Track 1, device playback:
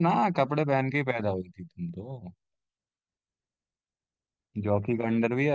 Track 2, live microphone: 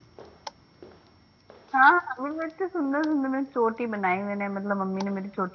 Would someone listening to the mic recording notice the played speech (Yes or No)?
No